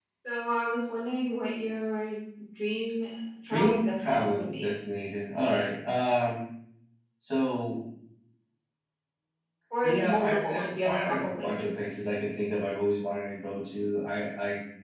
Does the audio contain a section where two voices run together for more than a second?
Yes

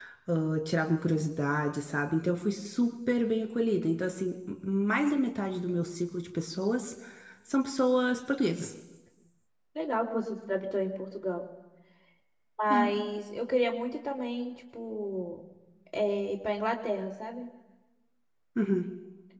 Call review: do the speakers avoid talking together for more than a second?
Yes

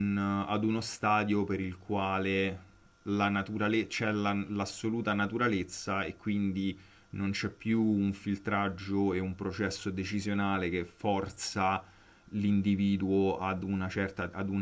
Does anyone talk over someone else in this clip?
No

